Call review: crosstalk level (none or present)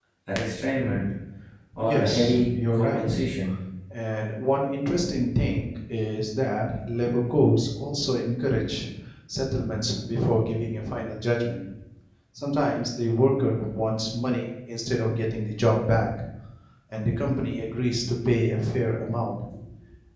present